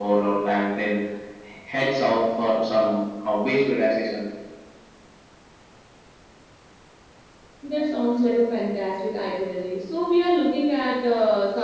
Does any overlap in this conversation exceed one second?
No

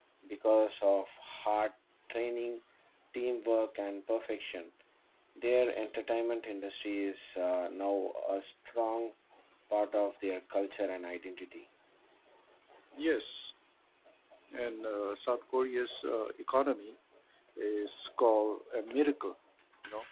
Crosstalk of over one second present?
No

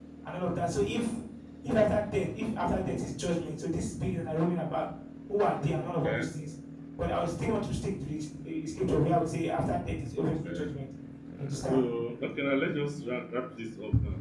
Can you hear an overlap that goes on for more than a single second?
No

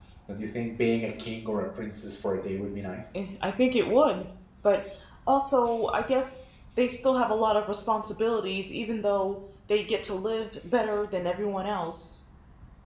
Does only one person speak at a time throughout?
Yes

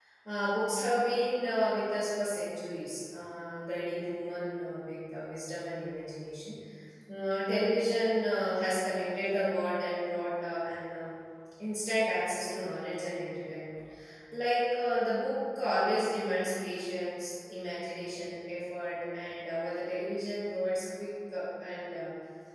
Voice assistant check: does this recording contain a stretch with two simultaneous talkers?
No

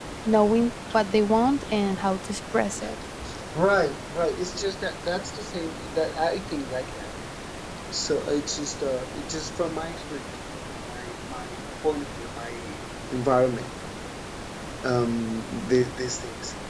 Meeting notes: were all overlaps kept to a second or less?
Yes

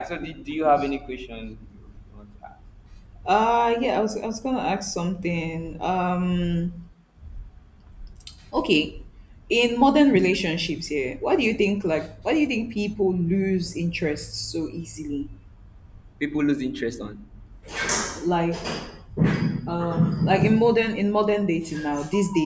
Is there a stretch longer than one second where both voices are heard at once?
No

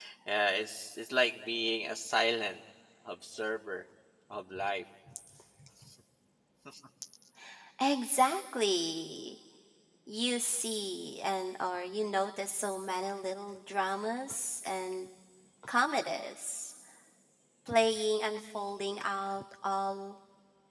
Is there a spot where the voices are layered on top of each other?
No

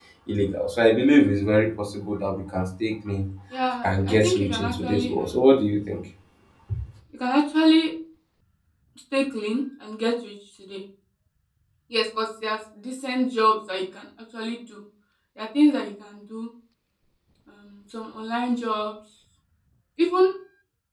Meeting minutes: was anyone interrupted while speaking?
Yes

